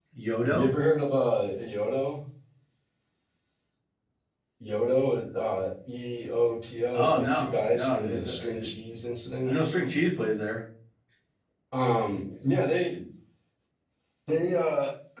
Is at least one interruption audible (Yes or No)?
Yes